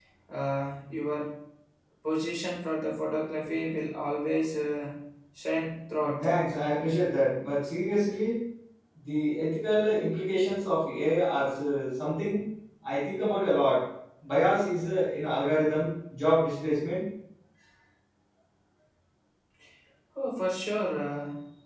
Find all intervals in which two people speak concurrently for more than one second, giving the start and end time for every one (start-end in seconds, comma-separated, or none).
none